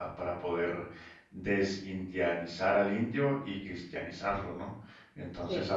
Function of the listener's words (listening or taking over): listening